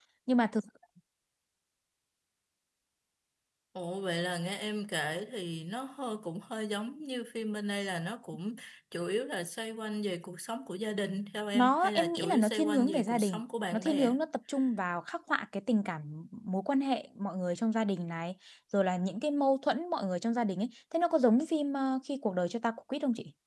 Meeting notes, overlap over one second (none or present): present